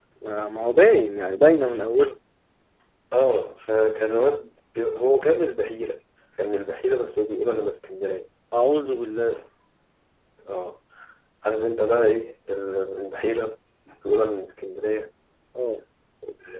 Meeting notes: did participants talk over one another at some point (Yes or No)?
No